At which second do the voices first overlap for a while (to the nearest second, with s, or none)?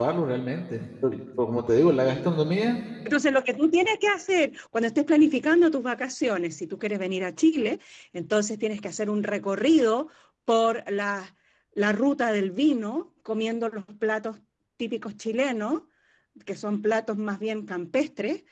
none